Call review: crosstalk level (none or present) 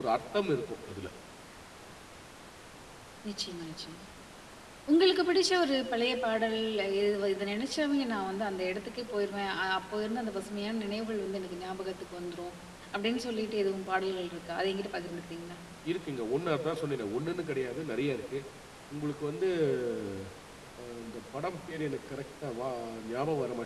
none